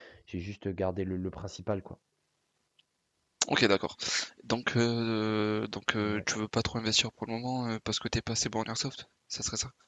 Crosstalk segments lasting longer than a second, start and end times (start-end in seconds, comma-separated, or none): none